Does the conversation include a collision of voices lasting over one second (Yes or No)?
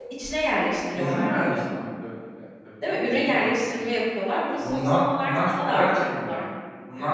Yes